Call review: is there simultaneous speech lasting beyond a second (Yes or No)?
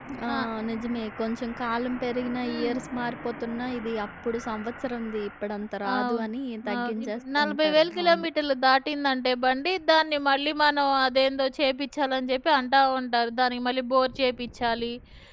Yes